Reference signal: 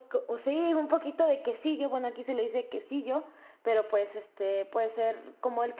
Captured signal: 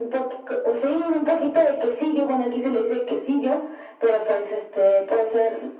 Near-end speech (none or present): none